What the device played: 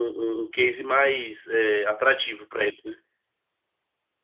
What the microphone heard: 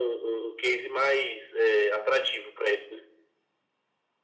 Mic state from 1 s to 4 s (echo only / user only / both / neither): echo only